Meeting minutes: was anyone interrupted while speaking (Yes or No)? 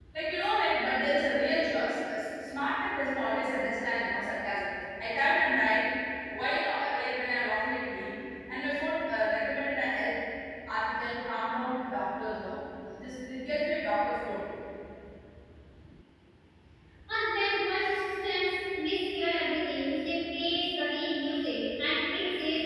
No